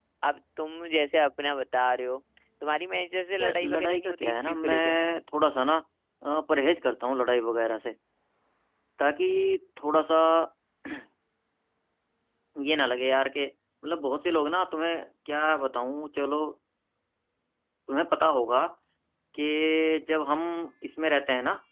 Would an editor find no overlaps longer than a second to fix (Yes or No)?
No